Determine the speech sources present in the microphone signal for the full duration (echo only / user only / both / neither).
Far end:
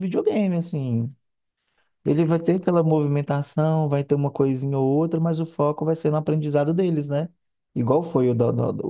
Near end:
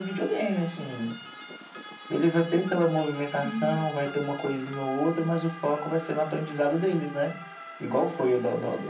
both